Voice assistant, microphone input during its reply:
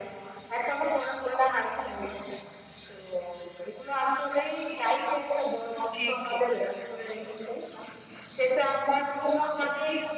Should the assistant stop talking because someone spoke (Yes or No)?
Yes